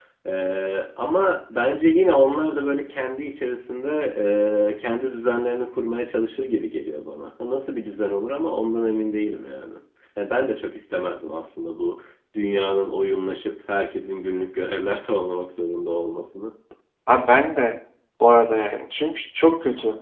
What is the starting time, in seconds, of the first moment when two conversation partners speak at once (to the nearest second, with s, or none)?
none